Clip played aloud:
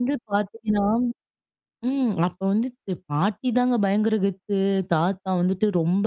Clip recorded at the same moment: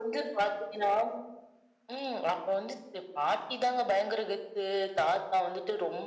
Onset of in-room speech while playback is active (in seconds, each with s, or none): none